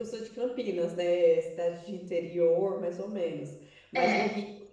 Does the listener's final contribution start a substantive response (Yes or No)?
No